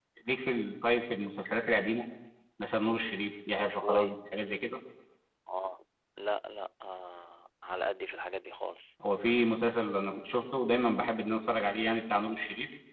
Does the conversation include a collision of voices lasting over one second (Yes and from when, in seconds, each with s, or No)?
No